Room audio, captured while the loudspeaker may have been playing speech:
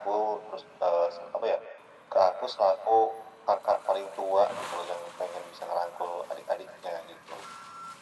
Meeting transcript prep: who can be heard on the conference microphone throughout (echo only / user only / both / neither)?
echo only